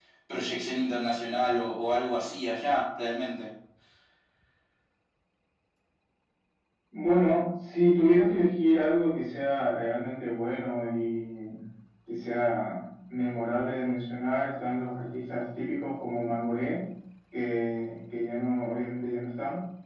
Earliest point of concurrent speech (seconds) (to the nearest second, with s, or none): none